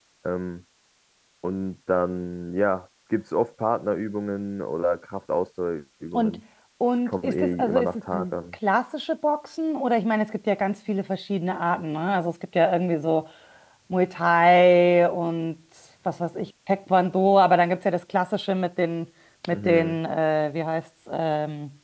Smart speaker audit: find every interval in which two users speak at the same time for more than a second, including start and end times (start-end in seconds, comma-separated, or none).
7.1-8.3